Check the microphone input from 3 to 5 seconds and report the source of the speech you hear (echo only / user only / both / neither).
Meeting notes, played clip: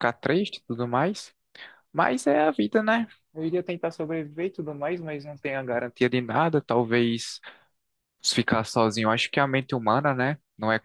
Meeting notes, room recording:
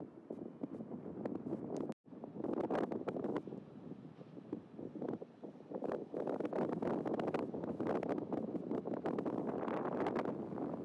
neither